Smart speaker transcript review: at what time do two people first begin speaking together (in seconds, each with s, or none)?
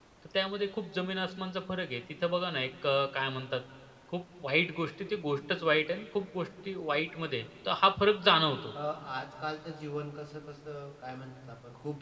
none